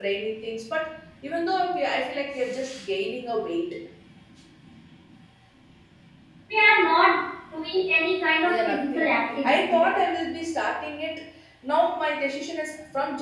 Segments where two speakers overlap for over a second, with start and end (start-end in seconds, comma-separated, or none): 8.5-10.0